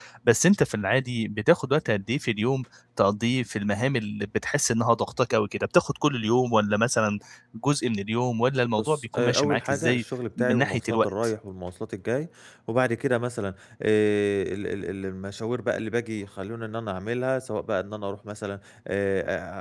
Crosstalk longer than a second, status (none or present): present